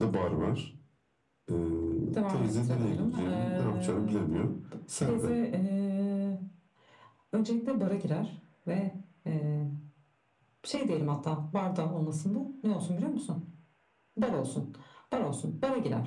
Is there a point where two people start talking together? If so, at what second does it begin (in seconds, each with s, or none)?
2.3 s